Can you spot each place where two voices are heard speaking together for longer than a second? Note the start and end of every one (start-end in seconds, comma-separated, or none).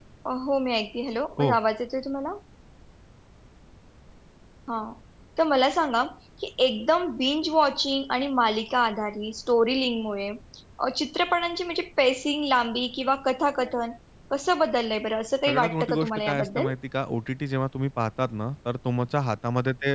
15.5-16.7